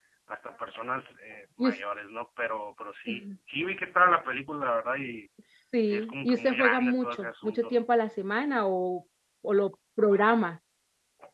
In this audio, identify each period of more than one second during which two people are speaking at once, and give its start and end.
5.9-7.8

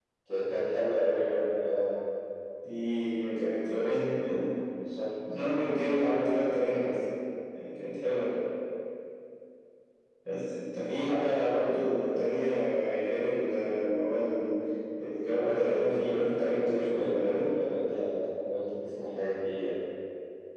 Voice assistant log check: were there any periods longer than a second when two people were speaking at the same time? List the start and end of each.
15.3-17.5

